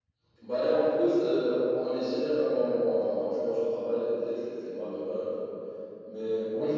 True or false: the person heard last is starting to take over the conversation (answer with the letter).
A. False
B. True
B